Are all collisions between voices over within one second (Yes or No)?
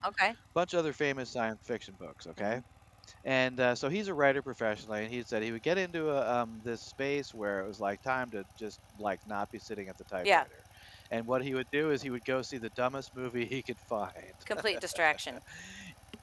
Yes